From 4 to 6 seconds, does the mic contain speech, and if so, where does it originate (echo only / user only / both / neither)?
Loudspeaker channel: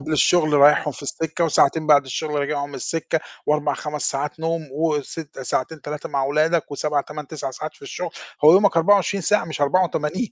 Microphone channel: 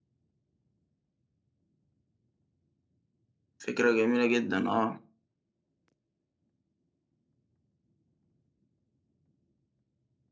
user only